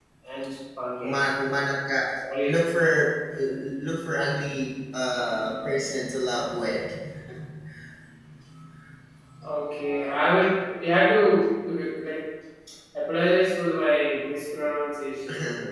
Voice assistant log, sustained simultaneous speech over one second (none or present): none